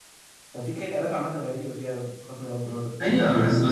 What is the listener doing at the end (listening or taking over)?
taking over